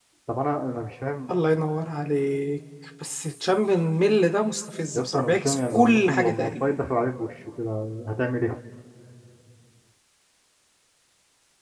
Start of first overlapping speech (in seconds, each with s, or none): 5.0 s